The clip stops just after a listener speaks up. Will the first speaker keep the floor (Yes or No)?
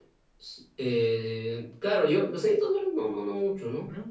Yes